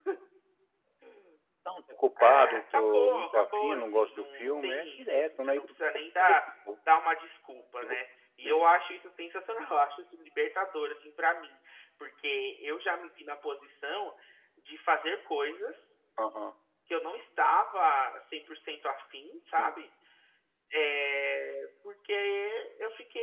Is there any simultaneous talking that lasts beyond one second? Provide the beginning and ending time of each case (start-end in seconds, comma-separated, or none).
2.2-5.7